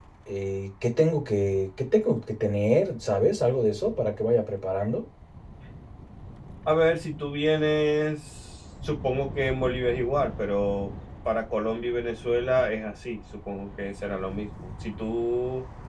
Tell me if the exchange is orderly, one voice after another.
Yes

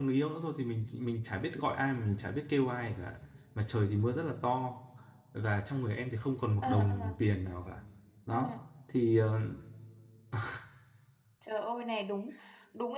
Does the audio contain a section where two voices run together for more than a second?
No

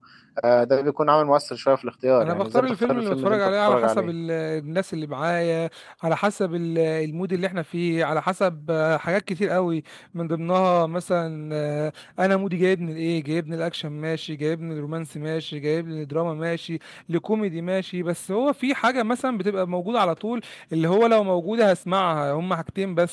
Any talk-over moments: Yes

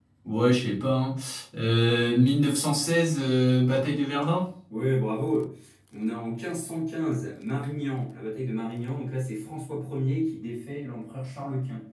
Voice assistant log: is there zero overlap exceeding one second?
Yes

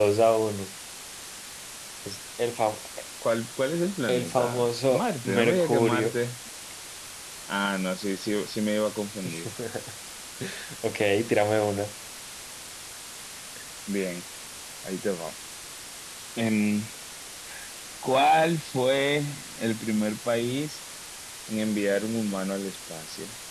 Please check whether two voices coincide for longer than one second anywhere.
Yes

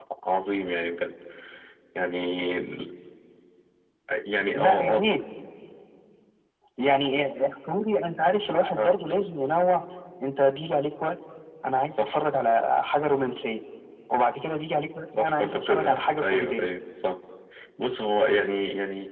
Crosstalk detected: Yes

